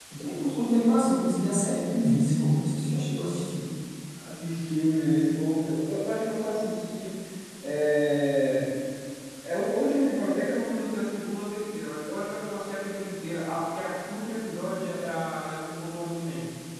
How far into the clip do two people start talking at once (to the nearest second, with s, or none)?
none